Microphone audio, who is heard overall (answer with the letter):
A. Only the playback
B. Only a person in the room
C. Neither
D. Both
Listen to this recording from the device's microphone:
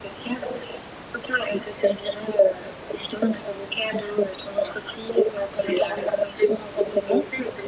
A